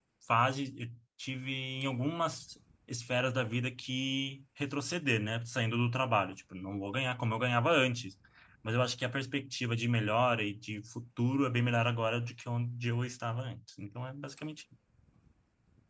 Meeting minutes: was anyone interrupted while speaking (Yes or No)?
No